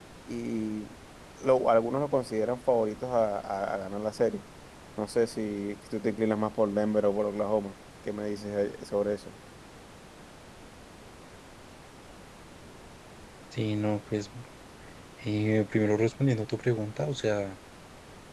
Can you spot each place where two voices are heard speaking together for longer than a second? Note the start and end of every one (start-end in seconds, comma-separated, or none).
none